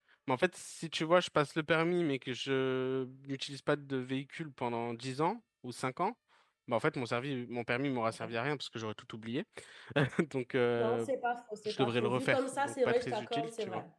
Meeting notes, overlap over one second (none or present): present